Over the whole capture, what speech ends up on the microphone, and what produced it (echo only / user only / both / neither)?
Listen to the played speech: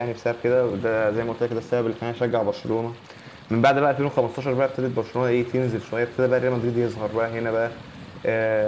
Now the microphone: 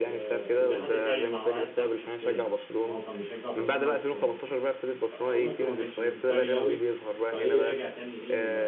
both